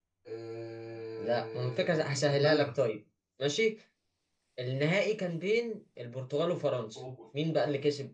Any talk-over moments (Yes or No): Yes